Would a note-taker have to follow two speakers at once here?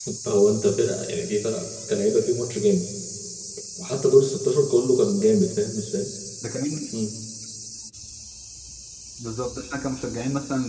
No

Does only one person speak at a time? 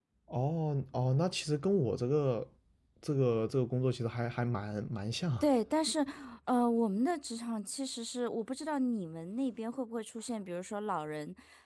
Yes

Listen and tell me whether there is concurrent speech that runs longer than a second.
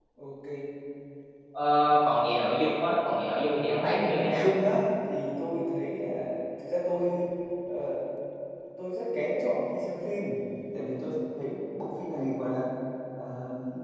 No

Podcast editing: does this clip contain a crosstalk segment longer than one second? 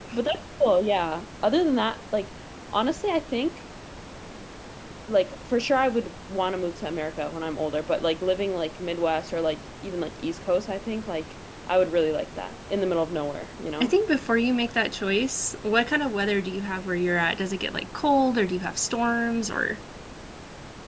No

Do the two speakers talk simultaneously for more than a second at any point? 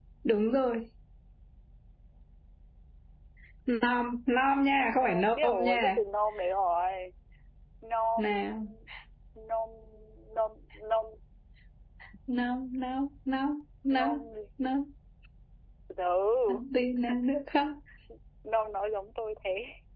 Yes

